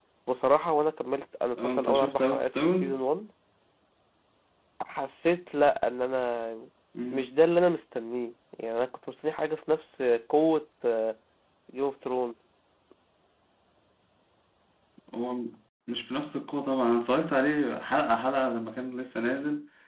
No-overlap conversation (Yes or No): No